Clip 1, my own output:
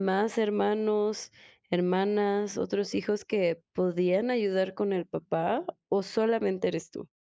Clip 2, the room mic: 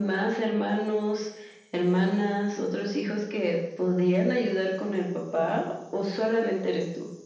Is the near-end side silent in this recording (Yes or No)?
Yes